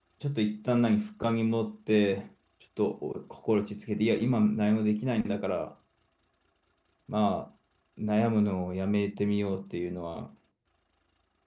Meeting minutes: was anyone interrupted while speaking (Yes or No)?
No